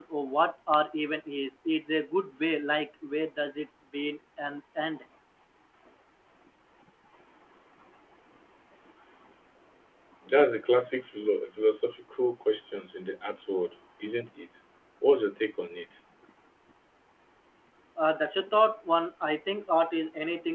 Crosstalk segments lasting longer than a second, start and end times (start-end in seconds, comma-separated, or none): none